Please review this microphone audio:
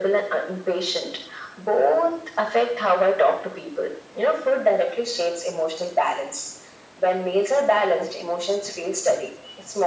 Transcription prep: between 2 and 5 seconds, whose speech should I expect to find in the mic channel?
echo only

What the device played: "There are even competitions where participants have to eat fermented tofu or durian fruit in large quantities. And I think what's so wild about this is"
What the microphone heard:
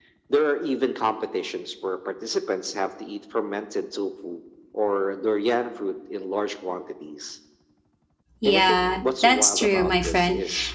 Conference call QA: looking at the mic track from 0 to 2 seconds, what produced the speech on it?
echo only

